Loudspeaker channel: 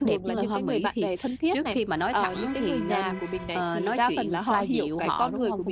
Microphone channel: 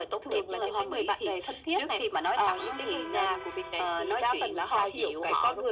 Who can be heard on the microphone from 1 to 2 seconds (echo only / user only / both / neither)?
echo only